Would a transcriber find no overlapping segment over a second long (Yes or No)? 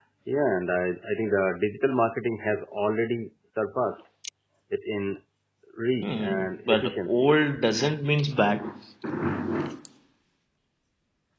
No